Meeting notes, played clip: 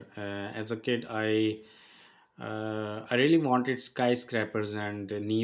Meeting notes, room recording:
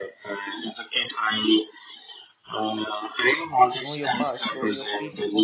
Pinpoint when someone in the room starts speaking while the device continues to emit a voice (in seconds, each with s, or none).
3.8 s